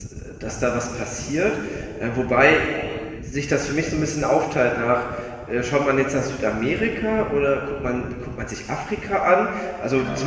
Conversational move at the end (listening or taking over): listening